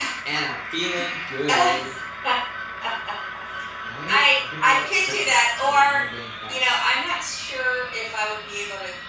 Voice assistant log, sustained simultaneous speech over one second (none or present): present